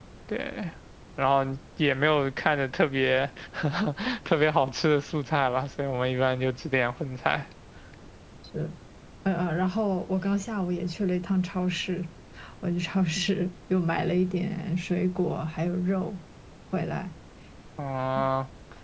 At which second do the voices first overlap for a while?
none

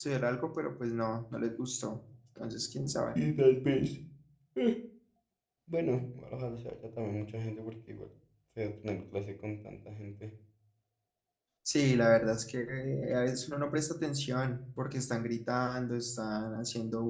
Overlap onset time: none

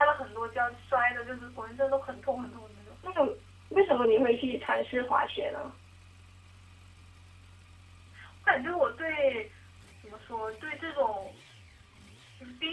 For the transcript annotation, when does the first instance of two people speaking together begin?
none

